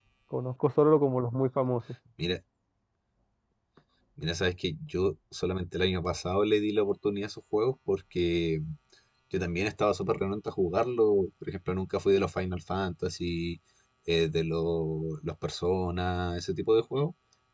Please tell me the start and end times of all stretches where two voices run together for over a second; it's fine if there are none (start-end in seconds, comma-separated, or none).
none